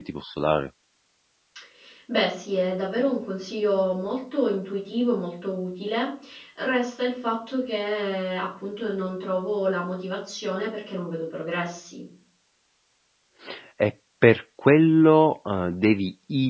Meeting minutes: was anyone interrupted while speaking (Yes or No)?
No